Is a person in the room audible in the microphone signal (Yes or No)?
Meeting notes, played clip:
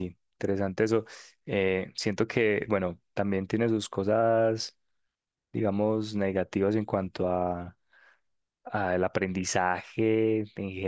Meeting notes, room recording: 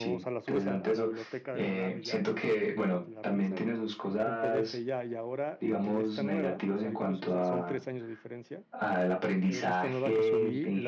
Yes